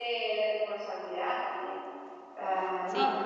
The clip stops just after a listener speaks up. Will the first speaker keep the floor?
Yes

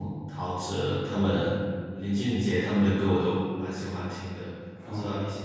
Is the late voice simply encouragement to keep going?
No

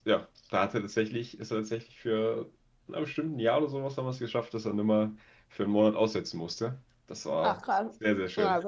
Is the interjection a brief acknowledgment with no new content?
No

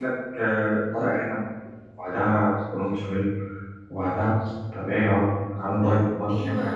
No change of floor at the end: No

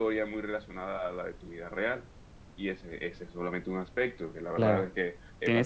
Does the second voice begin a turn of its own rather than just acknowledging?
Yes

